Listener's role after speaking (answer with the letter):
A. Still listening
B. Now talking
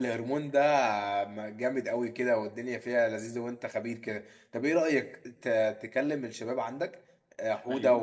A